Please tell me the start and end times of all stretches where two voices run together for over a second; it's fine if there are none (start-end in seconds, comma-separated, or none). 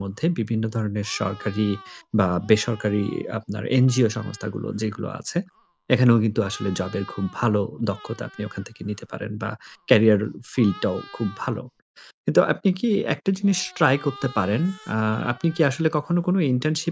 none